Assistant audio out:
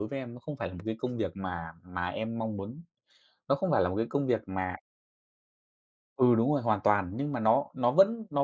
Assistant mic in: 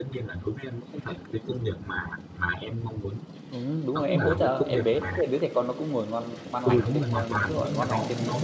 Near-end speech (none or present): present